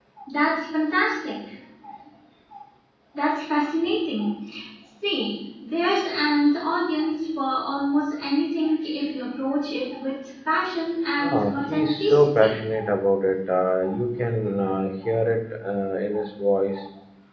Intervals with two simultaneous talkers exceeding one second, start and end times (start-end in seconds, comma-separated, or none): 11.2-12.6